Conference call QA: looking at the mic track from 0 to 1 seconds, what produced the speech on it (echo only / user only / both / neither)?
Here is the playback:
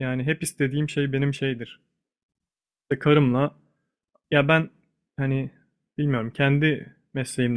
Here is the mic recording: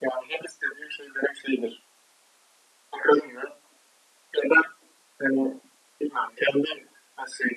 echo only